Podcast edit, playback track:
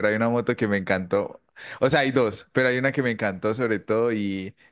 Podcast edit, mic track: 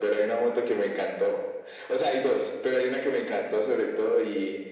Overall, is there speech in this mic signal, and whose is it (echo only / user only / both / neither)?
echo only